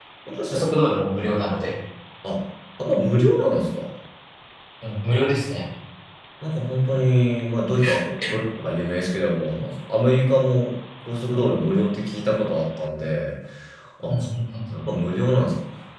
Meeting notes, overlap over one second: none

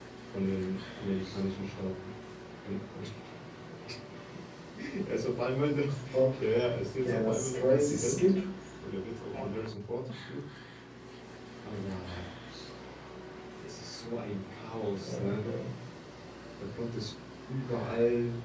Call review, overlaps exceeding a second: present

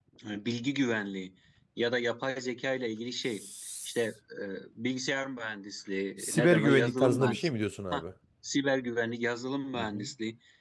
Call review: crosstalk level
present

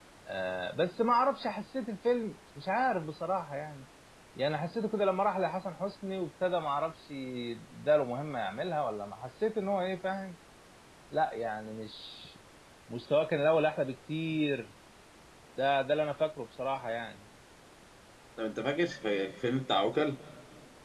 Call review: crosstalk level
none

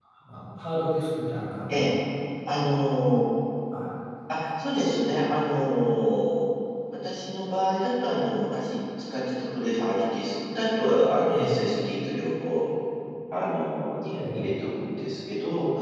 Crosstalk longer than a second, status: none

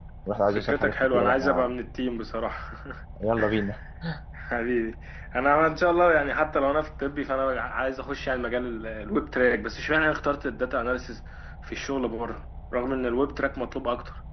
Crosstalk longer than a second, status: present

